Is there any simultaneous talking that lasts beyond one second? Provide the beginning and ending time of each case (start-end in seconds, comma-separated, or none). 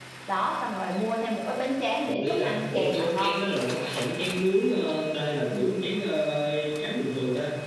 2.0-3.4